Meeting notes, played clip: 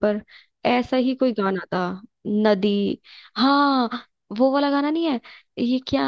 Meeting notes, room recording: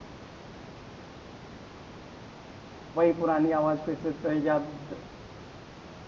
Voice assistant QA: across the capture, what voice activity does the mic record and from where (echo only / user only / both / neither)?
user only